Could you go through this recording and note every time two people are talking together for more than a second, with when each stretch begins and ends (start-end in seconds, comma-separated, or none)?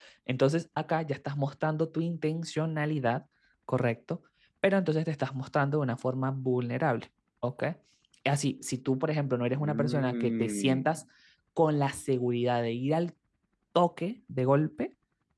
9.5-11.0